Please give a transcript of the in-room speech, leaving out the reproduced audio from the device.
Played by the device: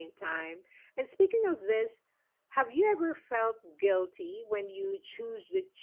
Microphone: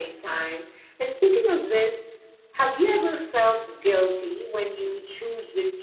none

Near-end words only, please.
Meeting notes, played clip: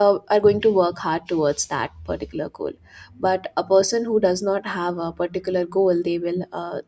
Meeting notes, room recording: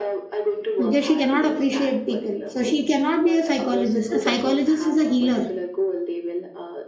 Okay, she cannot appreciate people. So she cannot be a psychologist. A psychologist is a healer.

